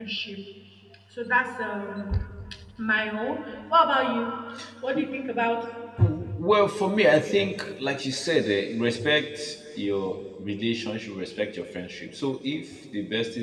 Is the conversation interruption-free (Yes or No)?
Yes